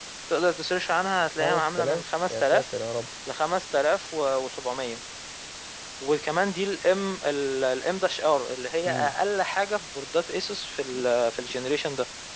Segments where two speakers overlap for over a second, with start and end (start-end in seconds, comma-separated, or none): 1.4-2.8